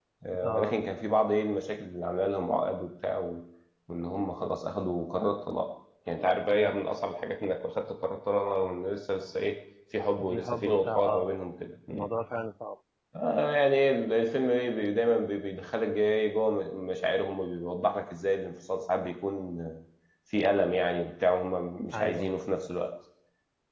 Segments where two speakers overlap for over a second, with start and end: 10.2-11.4

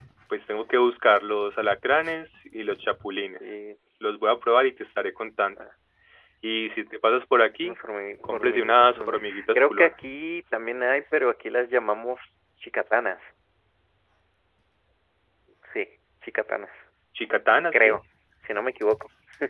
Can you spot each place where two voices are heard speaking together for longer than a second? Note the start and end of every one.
8.2-9.9

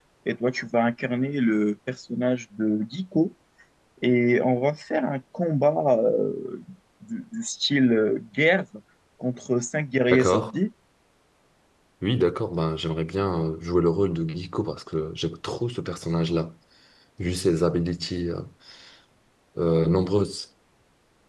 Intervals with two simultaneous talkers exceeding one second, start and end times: none

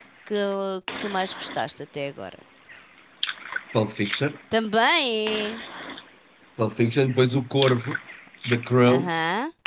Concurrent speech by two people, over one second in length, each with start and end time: none

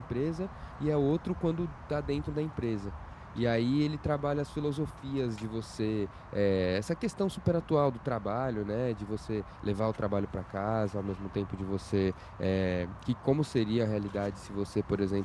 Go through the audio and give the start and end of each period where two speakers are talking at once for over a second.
none

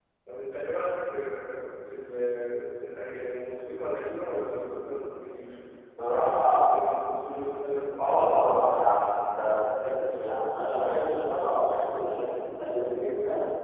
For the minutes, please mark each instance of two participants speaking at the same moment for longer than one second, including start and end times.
8.0-9.5

